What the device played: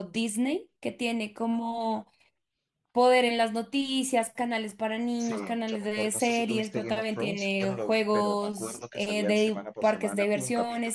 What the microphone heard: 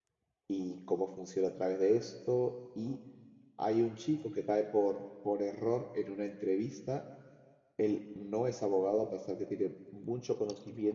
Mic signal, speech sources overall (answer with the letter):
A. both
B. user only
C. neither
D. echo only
B